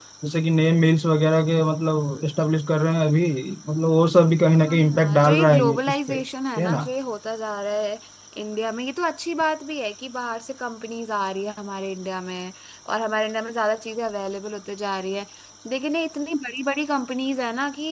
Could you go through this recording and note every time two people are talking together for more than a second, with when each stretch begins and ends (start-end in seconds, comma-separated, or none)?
4.6-6.1